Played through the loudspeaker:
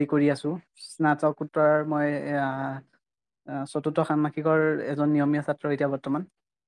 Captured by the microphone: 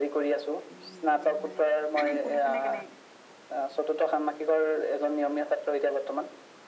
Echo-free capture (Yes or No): No